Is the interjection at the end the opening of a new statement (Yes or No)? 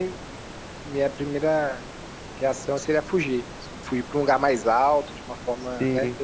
No